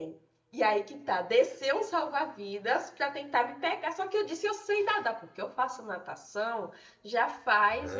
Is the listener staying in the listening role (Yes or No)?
No